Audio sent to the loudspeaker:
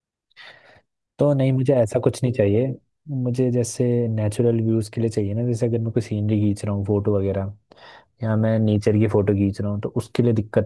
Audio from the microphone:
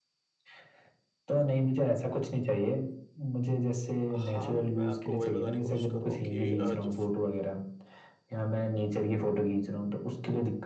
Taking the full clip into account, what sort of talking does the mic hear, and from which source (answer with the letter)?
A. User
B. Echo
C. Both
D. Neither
C